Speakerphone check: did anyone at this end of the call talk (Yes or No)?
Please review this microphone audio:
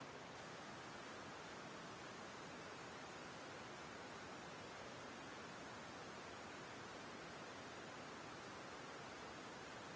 No